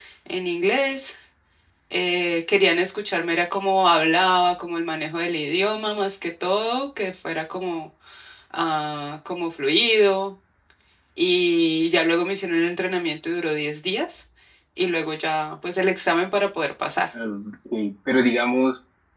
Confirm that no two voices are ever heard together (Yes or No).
Yes